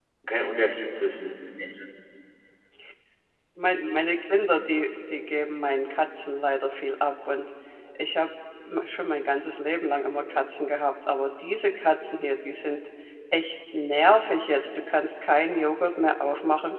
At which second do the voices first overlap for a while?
none

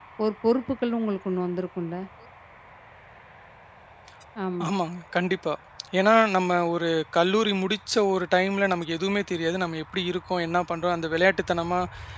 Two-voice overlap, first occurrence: none

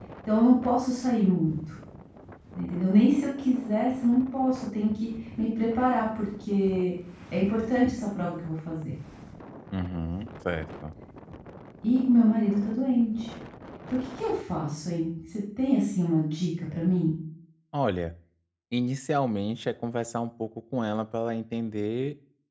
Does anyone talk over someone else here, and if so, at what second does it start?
none

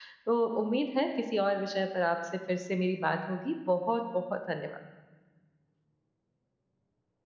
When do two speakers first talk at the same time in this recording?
none

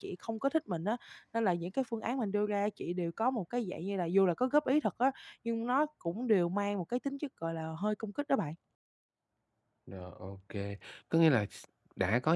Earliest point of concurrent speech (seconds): none

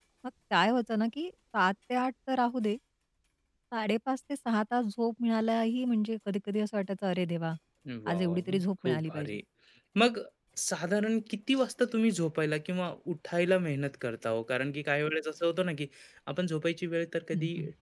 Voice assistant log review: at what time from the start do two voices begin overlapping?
8.1 s

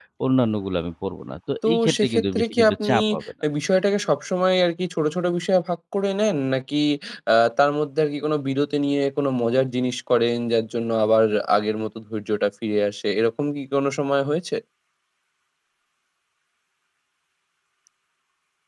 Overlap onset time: 1.6 s

